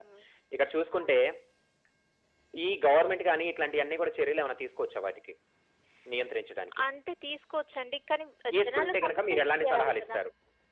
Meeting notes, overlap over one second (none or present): present